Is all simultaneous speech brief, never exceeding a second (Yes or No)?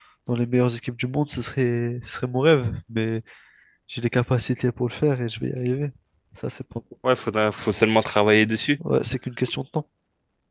Yes